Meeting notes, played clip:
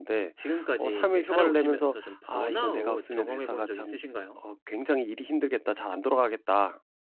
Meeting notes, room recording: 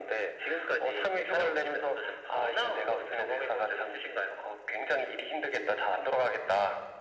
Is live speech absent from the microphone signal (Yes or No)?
Yes